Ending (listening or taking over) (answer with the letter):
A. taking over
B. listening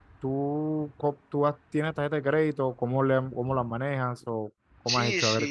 A